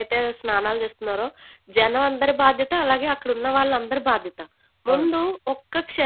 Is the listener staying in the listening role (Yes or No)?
Yes